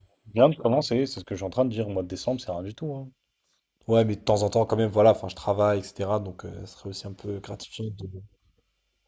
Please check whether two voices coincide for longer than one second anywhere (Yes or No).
No